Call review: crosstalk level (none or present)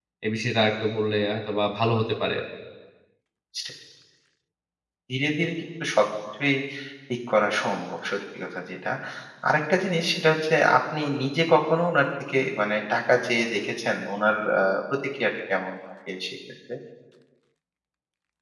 none